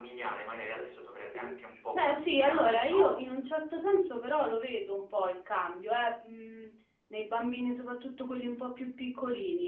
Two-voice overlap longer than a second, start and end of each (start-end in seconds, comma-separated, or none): 1.9-3.3